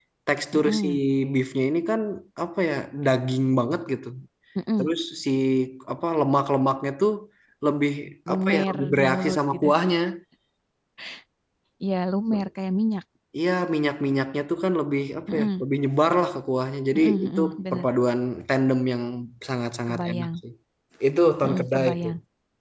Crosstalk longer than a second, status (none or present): present